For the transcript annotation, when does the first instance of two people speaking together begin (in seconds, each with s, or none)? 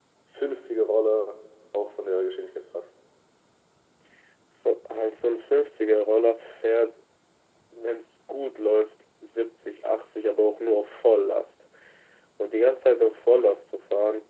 none